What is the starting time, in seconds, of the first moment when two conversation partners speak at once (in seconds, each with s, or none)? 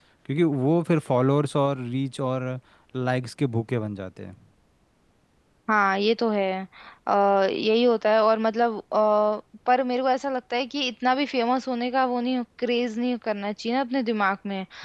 none